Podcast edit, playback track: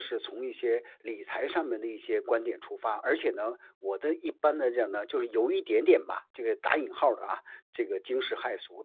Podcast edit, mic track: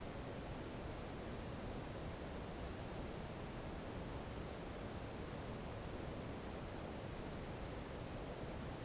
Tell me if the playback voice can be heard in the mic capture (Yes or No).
No